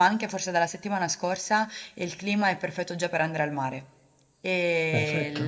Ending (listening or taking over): listening